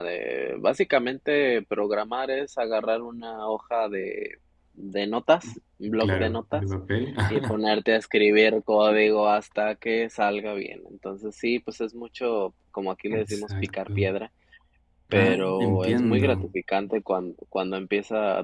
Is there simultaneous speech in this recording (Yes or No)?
Yes